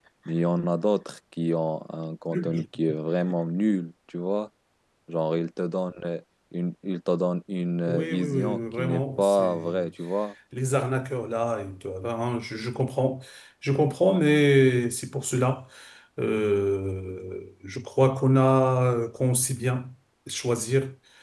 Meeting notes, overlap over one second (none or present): present